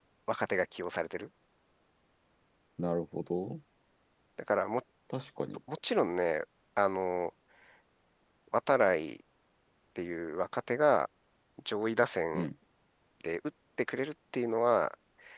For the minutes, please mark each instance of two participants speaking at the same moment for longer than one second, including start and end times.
none

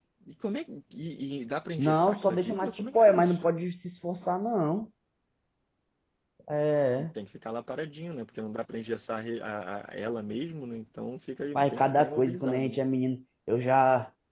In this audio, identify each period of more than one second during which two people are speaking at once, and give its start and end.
1.8-3.3, 11.5-12.8

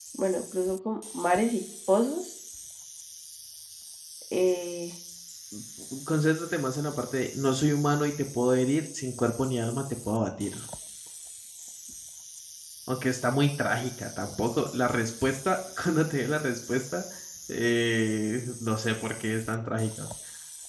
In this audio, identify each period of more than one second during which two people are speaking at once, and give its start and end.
none

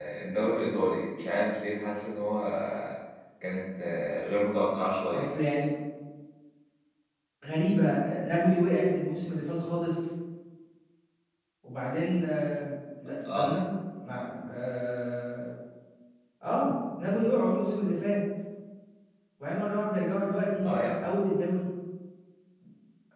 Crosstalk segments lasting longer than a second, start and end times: none

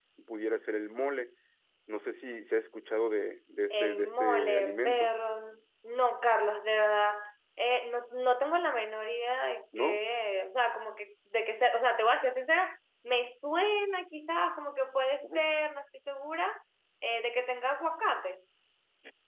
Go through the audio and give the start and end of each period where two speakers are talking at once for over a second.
3.7-5.1

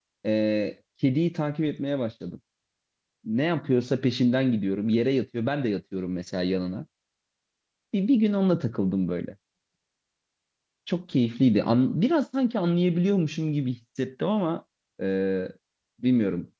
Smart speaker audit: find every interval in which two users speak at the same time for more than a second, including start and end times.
none

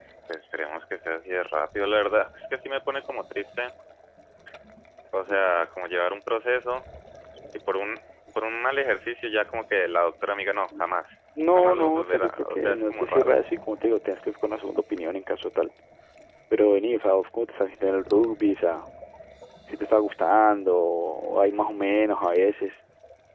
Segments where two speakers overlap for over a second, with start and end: 11.6-13.3

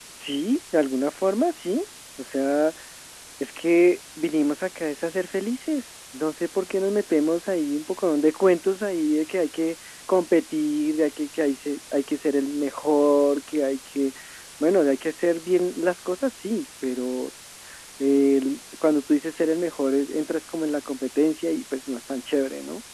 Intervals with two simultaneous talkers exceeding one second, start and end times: none

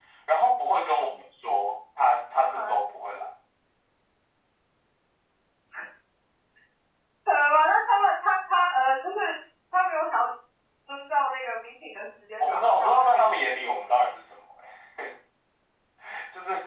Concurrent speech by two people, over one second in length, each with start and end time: 12.5-14.1

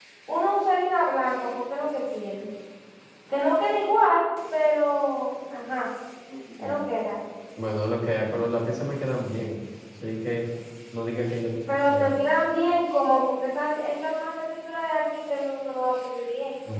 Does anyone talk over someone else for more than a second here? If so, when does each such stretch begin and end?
none

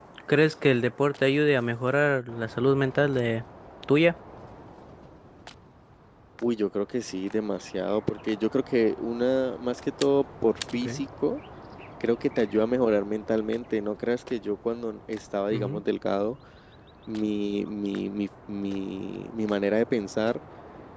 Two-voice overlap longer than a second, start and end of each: none

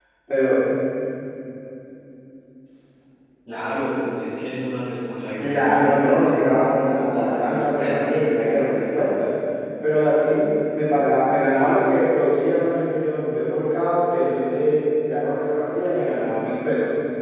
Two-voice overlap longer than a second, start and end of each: 5.4-8.2

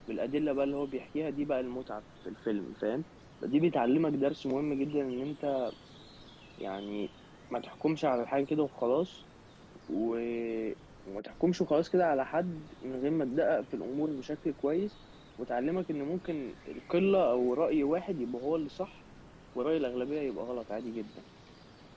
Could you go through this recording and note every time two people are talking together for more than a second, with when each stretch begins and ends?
none

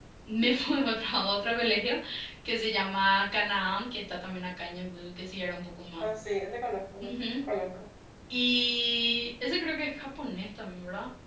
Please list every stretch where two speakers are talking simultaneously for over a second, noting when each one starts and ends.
none

